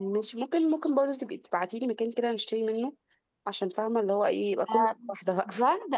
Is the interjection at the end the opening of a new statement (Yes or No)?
Yes